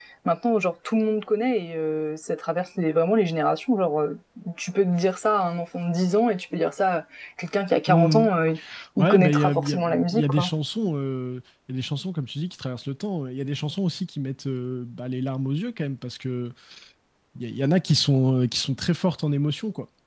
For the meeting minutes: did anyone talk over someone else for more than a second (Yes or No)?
Yes